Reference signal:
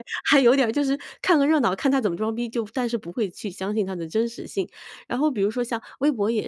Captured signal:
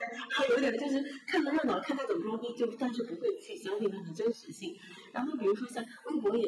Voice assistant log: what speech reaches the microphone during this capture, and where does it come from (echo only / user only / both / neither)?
echo only